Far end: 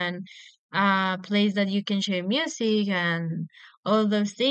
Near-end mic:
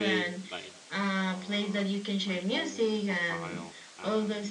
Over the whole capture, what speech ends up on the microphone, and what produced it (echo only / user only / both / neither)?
both